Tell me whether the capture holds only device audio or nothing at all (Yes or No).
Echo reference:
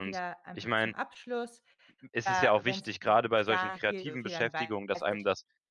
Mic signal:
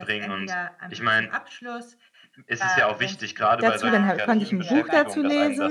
No